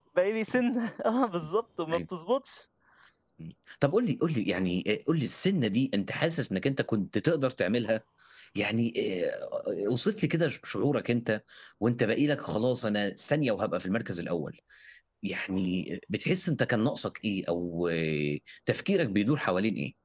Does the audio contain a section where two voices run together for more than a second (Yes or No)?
No